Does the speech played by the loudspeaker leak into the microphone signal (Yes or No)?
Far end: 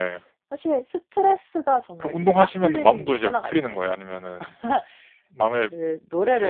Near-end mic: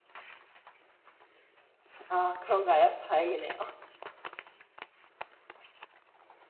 No